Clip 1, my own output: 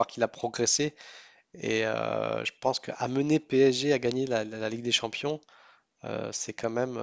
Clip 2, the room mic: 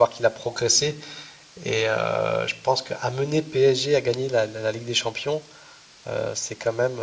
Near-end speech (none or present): none